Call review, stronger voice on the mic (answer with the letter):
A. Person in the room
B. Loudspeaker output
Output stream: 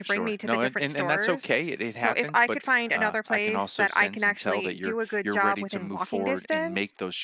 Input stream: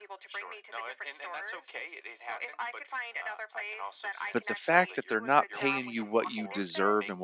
A